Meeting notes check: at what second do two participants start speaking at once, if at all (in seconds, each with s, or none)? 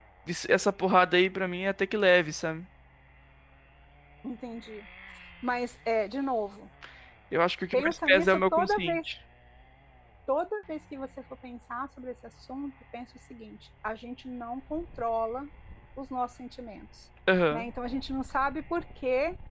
7.7 s